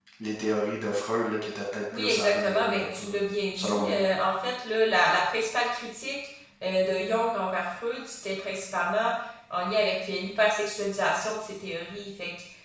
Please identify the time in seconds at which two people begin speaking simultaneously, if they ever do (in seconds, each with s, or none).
1.9 s